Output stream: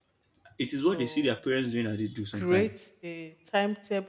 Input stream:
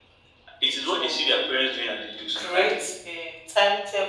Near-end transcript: none

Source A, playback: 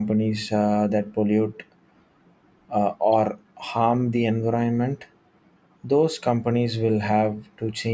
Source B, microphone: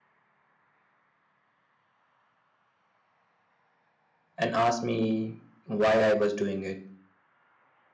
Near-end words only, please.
and asked me why I was doing it.

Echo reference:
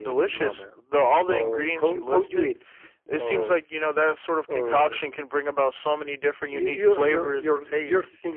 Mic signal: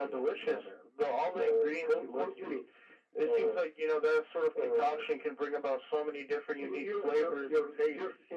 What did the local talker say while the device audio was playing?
none

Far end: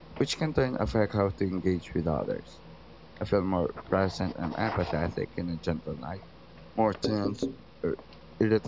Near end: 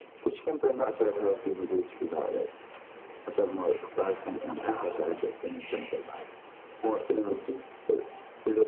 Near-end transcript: Absolutely, I've noticed that.

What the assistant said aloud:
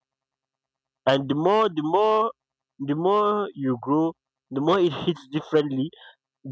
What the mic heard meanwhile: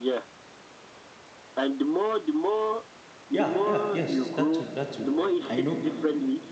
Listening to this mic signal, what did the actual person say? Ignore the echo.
yeah, yeah, yes, that too, that too. I know

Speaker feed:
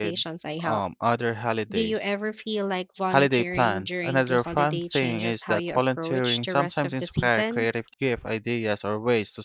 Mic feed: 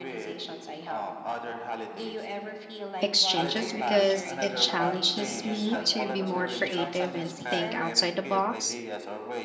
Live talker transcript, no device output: exchanges because it challenges me to be more creative and think outside the box.

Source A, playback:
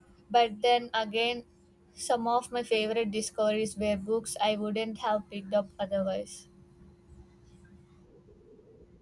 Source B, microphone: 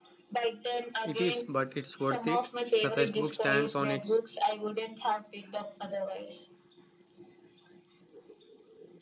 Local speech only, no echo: It is, but it's worth it. The first book stands on its

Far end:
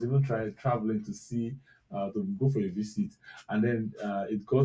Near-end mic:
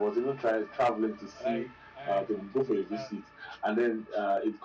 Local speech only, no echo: Like I have to understand.

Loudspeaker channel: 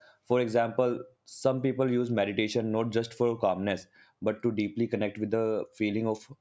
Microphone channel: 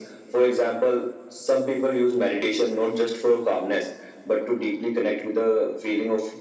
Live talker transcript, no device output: none

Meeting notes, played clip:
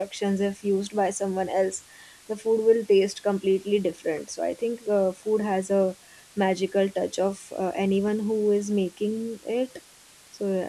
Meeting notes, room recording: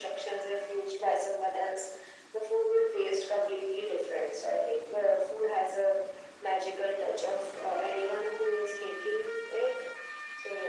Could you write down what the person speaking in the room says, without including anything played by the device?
none

